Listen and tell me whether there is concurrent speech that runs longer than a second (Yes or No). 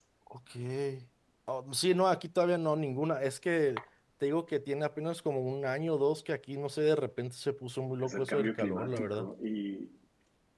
Yes